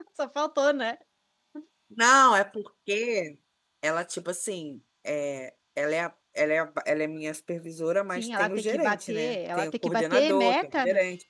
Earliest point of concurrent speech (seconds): 8.2 s

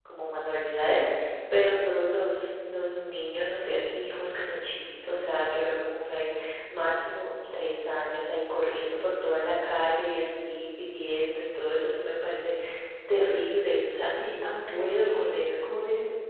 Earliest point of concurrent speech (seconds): 14.1 s

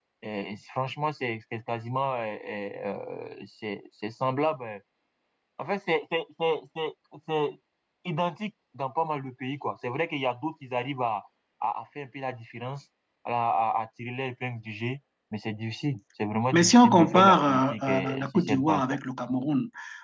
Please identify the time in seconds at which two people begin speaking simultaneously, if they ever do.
16.5 s

